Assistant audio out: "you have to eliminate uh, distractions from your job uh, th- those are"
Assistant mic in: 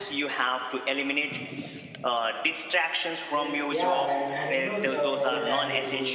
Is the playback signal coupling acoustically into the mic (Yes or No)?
Yes